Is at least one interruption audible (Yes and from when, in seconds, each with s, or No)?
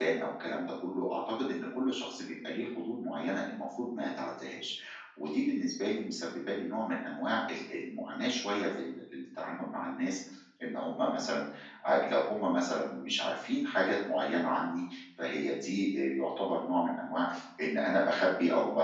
No